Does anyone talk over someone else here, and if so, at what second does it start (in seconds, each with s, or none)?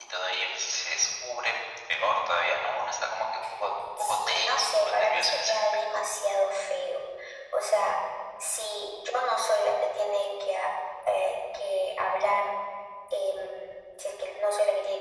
4.0 s